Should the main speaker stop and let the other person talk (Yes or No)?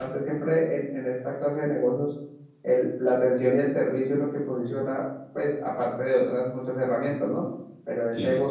No